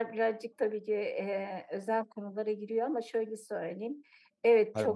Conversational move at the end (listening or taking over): taking over